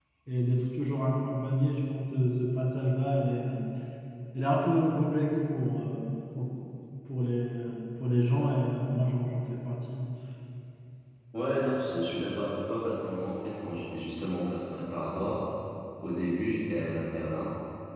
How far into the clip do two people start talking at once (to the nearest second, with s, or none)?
none